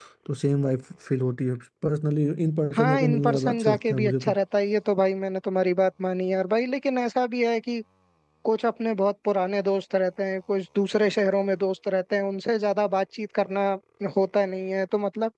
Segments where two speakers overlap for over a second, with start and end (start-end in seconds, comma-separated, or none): 2.7-4.4